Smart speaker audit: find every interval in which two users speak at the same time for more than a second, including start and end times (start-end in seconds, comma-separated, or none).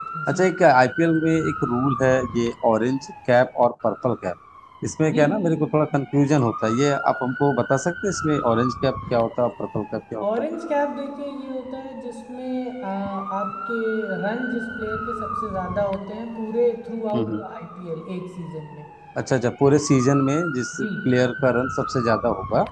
none